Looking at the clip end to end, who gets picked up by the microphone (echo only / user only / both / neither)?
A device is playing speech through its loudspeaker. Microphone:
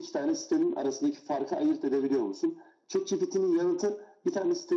echo only